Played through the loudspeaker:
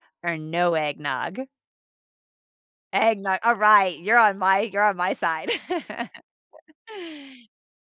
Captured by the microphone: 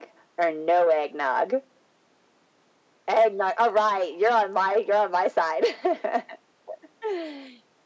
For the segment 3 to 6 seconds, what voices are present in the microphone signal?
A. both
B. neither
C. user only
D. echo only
D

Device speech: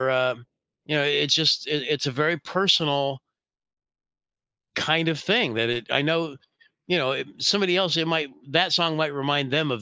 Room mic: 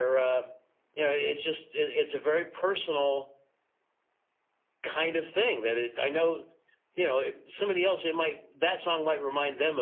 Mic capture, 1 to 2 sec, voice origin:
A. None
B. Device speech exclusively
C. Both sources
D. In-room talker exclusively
B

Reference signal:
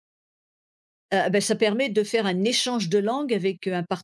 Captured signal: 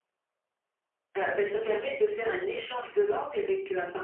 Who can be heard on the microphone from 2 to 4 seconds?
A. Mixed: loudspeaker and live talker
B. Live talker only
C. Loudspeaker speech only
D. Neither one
C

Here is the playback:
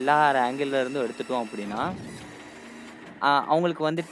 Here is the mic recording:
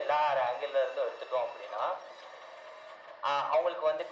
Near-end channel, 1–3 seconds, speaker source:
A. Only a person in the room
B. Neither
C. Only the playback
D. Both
C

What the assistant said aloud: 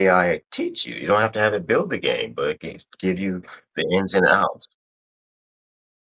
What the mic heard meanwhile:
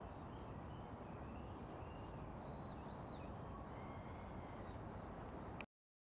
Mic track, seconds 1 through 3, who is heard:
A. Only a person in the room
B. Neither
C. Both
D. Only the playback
B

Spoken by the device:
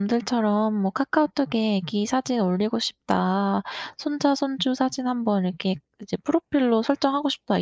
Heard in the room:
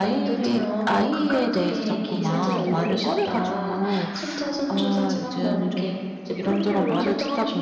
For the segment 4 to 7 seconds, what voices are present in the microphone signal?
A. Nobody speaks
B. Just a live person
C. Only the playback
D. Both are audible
D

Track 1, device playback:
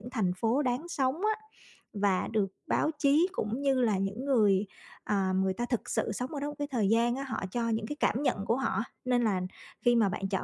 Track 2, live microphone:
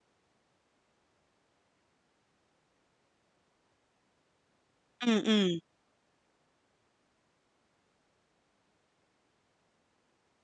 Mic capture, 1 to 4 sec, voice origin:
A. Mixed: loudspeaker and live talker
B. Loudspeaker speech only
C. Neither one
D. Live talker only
C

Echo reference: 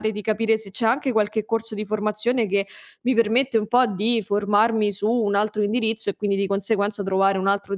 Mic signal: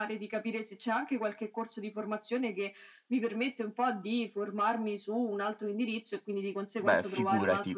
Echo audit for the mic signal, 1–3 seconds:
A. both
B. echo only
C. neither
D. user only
B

